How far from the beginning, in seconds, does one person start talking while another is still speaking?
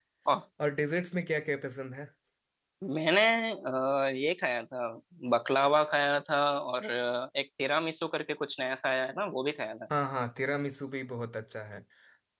none

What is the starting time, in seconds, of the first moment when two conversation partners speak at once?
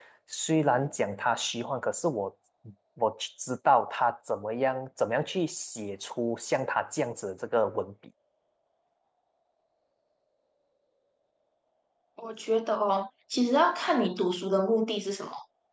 none

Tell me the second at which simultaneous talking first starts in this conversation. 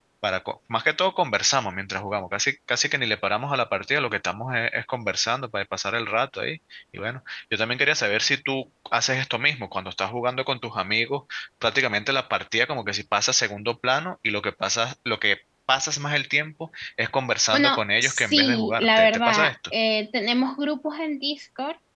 17.5 s

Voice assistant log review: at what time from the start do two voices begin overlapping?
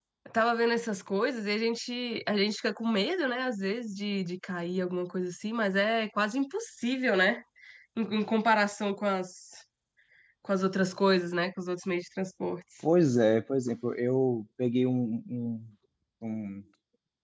none

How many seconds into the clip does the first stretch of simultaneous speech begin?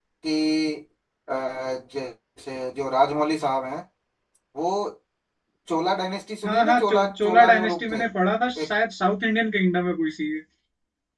6.4 s

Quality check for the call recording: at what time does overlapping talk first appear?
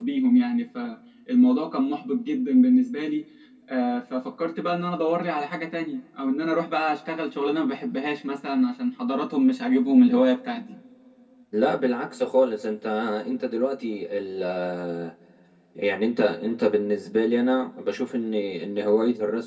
none

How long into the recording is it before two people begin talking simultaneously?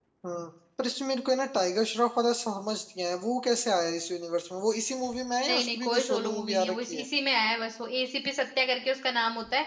5.4 s

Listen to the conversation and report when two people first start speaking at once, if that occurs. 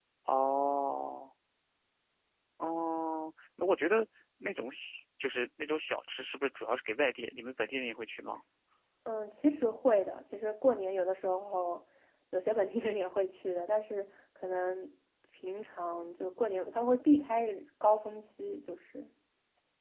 none

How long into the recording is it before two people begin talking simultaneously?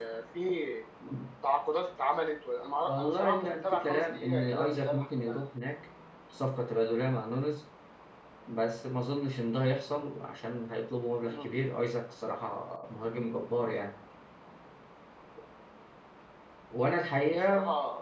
2.8 s

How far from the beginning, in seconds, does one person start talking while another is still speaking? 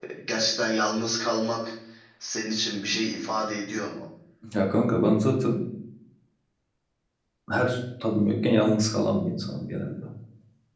none

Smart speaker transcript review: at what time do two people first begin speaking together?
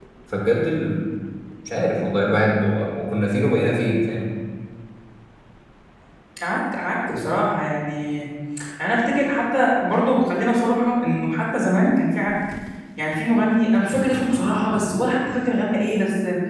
none

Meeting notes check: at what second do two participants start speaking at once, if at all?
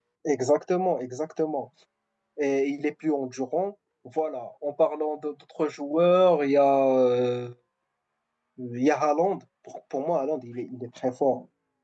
none

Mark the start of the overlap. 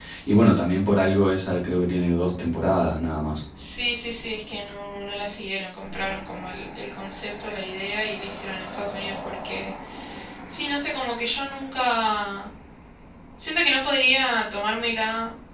none

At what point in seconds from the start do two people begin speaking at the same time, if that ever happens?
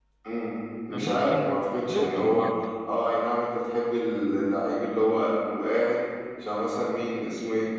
0.9 s

